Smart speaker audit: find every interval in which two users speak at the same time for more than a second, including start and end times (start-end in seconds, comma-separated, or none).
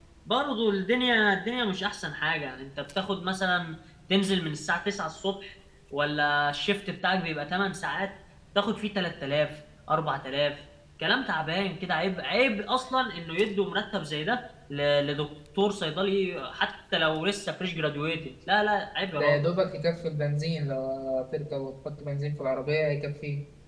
none